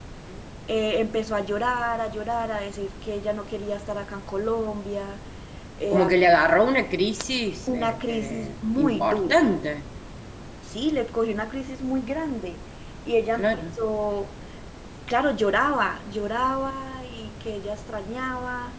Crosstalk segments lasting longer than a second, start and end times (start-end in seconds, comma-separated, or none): 7.7-9.4